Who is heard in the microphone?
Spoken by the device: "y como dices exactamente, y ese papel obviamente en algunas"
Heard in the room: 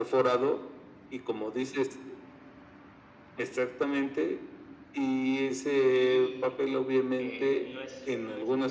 both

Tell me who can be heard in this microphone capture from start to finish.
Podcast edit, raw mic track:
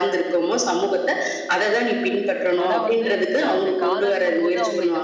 both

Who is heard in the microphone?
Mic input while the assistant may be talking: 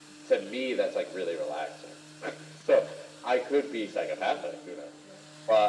echo only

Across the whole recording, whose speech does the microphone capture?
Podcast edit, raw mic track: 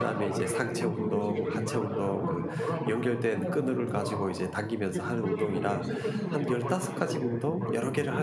both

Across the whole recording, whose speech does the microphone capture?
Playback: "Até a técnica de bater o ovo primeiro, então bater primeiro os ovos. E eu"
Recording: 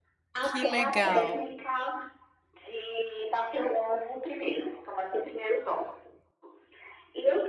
both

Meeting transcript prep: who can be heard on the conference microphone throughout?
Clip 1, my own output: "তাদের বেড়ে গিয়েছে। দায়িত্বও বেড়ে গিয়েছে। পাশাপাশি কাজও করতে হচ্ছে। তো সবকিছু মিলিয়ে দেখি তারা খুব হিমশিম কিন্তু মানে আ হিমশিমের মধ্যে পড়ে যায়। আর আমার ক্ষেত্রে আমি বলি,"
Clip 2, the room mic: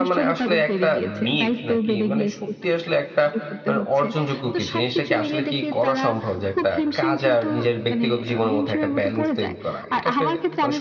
both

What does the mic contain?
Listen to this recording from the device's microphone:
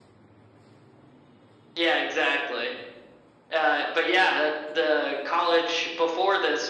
echo only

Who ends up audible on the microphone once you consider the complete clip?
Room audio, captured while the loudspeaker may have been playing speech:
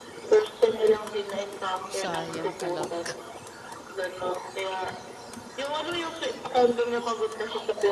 both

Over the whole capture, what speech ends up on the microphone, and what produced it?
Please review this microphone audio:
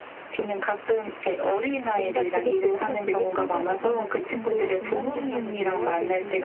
both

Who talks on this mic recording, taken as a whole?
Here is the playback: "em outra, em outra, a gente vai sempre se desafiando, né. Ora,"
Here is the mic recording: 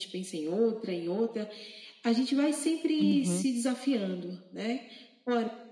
both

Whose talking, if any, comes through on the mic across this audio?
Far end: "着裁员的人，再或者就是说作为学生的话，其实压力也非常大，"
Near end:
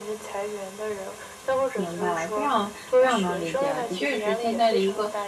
both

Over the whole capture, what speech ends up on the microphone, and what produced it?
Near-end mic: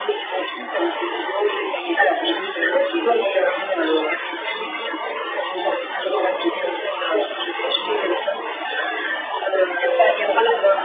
echo only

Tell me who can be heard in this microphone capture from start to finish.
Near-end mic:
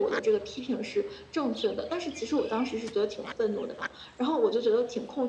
echo only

